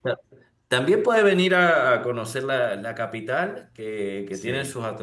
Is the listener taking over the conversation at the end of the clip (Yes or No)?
No